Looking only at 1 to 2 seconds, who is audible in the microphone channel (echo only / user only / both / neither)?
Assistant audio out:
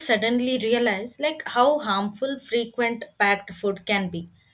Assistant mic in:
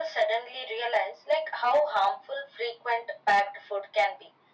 echo only